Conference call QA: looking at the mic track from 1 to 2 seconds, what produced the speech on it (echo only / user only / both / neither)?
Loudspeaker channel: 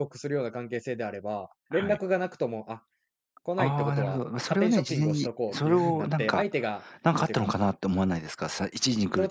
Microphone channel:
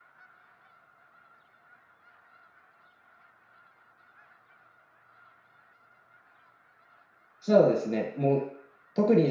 neither